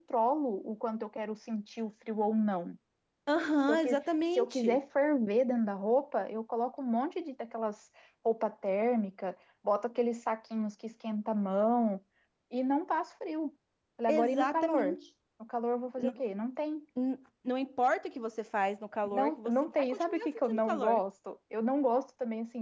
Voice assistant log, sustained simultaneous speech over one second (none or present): present